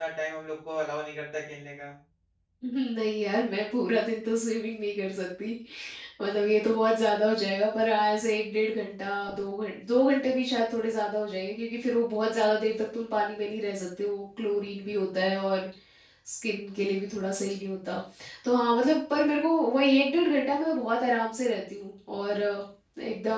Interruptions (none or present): none